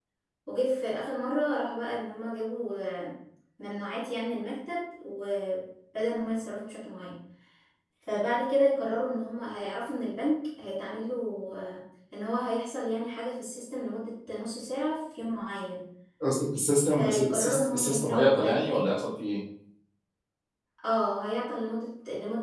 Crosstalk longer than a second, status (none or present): present